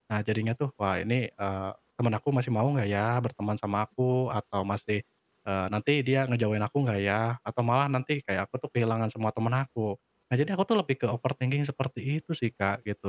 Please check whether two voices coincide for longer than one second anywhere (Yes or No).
No